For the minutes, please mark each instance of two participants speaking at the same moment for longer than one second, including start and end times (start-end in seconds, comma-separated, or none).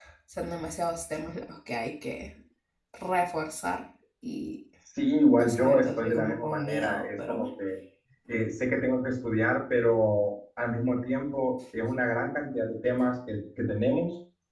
5.4-7.5